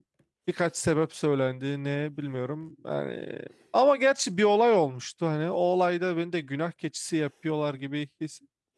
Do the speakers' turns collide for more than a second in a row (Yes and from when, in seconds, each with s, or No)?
No